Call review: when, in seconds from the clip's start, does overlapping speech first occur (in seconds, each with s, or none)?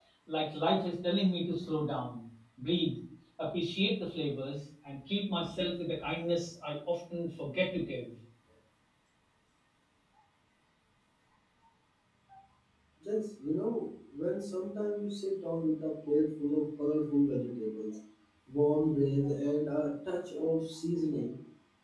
none